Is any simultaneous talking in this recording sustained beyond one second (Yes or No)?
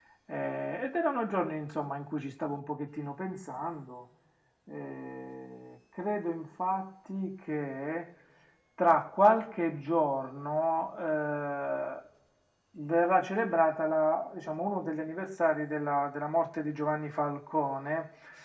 No